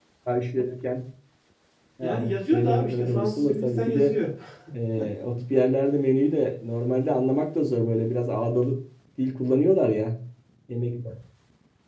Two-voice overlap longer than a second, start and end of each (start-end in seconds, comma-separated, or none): 2.0-4.1